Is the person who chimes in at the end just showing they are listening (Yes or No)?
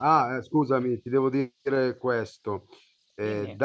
Yes